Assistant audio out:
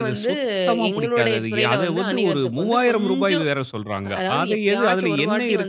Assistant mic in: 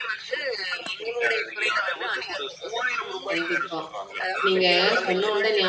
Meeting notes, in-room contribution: present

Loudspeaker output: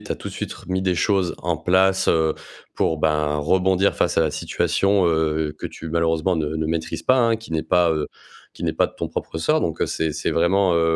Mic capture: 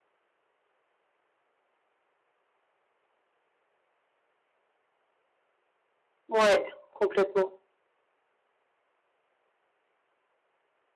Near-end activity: present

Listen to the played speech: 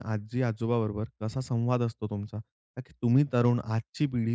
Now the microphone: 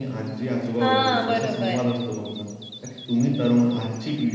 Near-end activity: present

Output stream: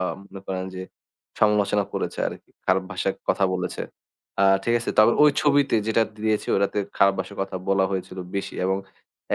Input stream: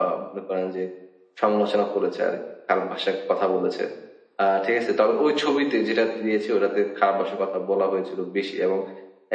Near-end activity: none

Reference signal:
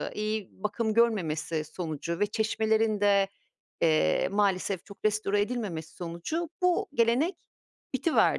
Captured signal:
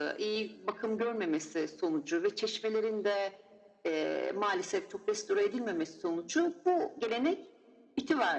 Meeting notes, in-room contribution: none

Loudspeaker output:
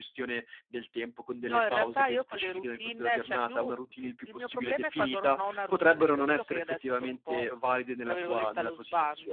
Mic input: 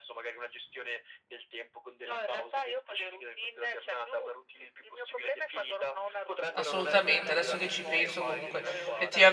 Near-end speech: present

